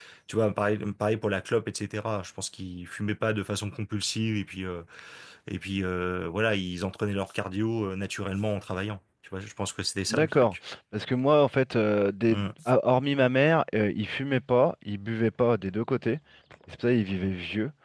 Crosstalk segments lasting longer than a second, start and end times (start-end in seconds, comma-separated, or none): none